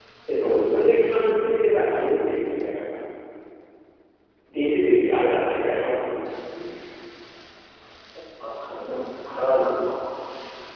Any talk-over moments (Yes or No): No